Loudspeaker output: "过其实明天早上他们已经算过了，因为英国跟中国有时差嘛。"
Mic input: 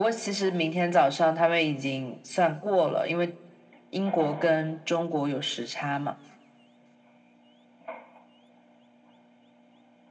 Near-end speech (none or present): none